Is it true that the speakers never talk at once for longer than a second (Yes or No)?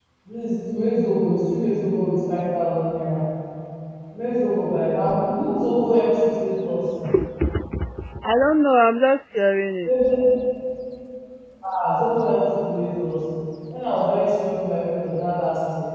Yes